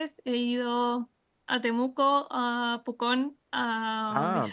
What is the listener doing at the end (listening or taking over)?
listening